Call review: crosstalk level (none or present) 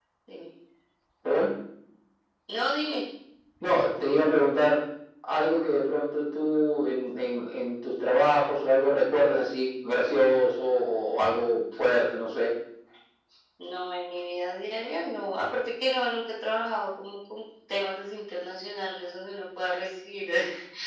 none